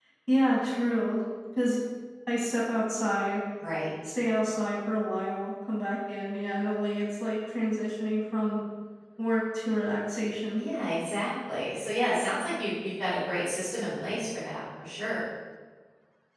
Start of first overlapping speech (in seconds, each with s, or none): none